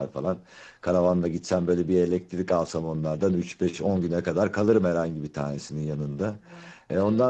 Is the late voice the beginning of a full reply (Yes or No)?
No